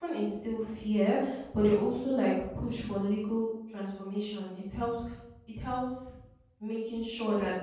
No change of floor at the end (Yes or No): Yes